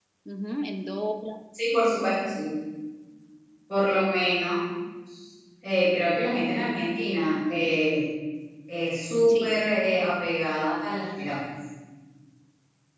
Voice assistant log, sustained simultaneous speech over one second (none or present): none